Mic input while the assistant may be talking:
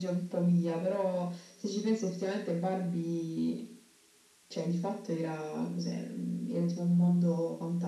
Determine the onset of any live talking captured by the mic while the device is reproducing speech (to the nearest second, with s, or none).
none